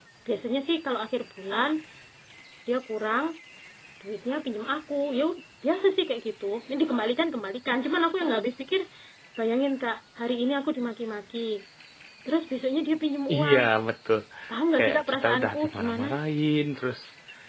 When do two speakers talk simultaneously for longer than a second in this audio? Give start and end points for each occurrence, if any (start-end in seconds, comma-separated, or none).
14.8-16.1